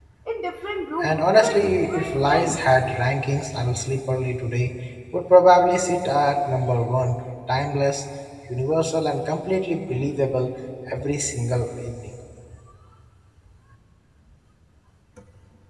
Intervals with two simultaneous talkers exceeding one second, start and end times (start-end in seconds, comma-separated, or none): 1.0-2.6